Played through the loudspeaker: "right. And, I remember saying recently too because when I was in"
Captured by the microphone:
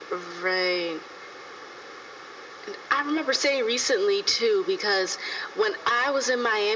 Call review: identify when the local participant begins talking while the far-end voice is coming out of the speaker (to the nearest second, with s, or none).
none